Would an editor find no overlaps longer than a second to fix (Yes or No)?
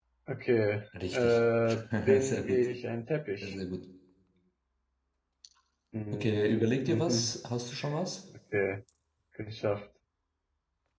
No